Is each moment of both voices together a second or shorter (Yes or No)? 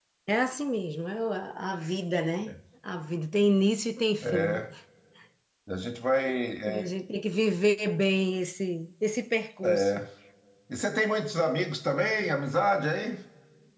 Yes